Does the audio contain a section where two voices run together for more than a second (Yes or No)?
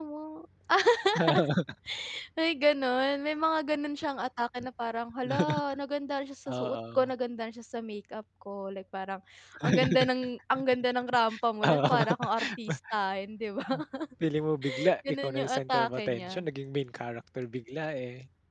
Yes